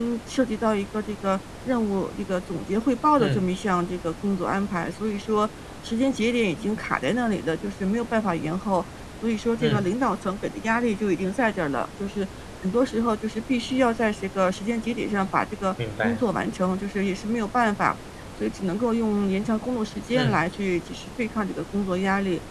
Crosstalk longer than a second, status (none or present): none